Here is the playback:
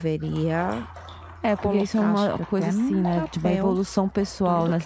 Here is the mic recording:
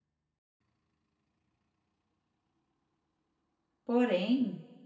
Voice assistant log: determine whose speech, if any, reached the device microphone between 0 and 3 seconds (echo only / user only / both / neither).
neither